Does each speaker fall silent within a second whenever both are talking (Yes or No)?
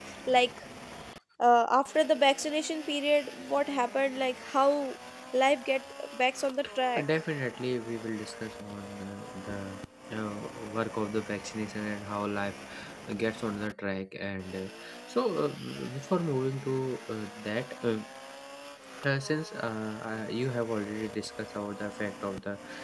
Yes